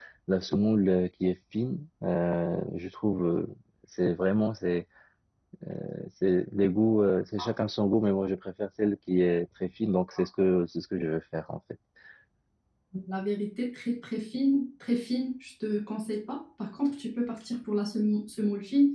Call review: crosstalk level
none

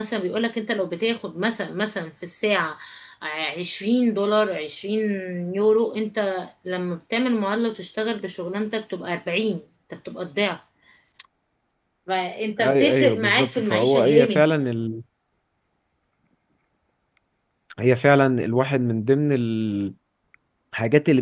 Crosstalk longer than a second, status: present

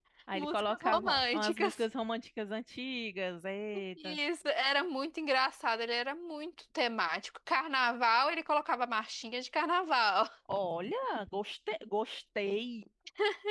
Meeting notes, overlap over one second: present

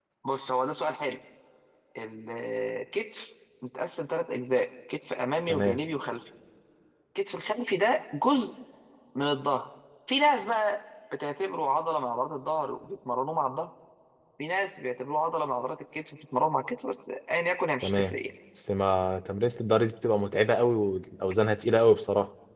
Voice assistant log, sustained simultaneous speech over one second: none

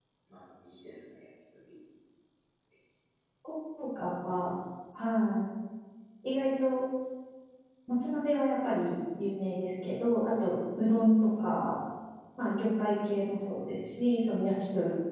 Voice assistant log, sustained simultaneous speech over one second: none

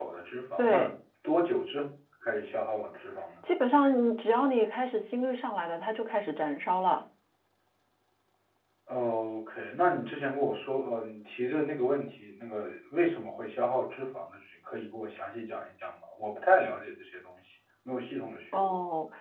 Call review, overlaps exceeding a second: none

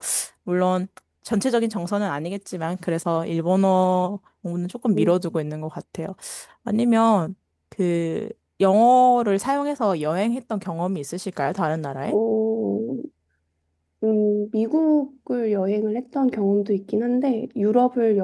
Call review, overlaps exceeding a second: none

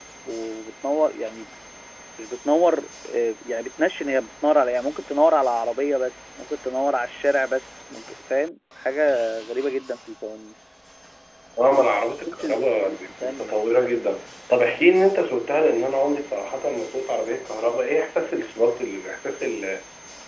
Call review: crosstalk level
present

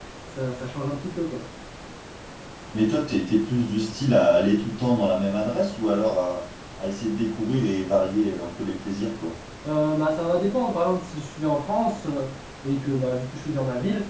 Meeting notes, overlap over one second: none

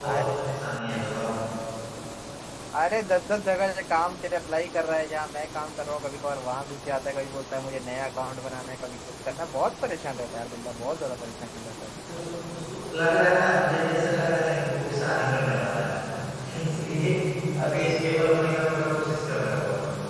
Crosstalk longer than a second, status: none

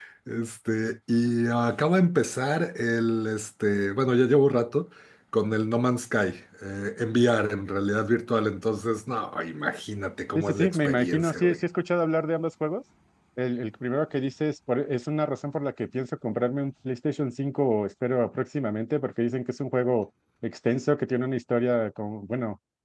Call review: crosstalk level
present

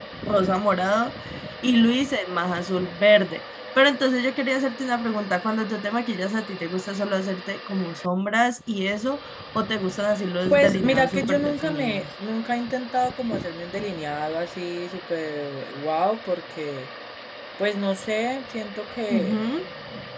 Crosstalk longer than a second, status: present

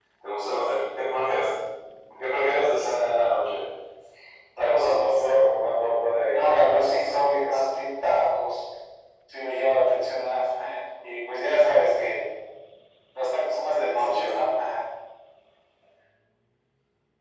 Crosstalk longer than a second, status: present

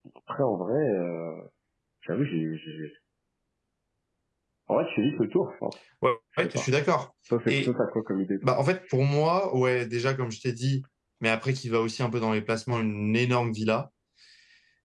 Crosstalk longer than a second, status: none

